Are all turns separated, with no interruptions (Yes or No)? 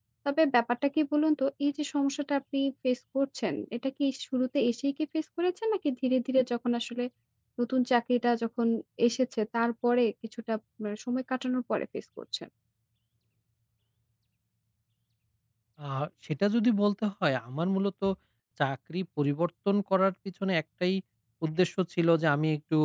Yes